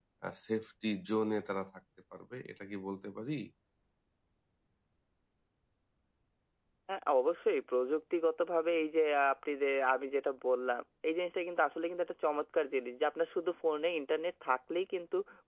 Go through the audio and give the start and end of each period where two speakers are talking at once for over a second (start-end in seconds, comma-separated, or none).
none